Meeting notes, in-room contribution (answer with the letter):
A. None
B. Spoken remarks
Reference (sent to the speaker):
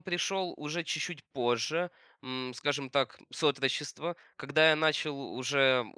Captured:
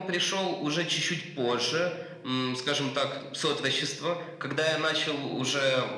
A